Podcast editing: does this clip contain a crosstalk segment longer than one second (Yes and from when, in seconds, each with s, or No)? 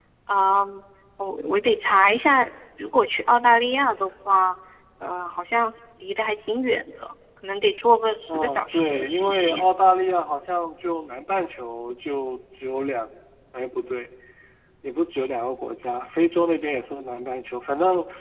Yes, from 8.3 s